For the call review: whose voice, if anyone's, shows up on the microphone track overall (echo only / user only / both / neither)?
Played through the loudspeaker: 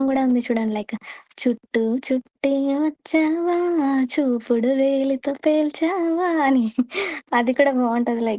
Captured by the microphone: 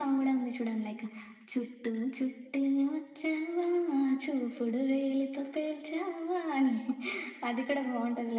echo only